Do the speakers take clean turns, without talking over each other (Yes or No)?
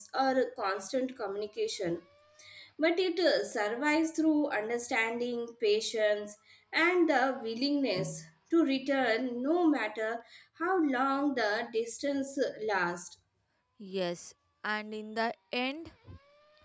Yes